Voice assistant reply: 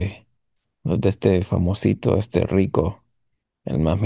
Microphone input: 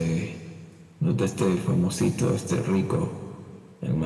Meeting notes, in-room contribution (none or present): none